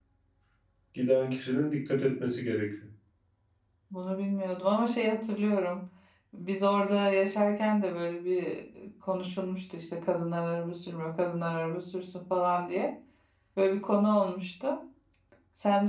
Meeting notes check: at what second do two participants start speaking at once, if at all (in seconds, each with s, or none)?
none